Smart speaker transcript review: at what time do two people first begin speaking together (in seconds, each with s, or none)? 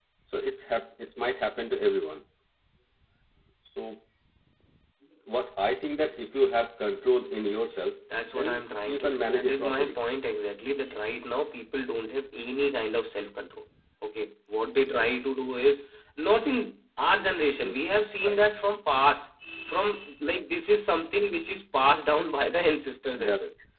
8.3 s